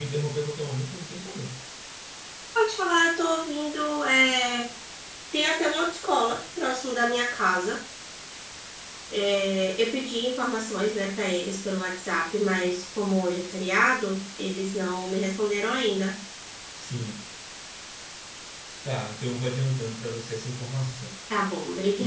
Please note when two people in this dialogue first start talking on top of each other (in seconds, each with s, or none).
none